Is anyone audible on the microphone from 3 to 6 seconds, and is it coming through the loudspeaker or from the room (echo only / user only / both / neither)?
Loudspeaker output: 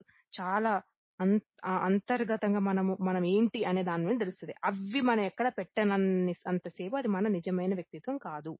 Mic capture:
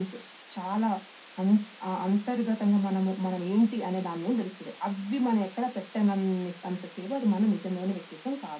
echo only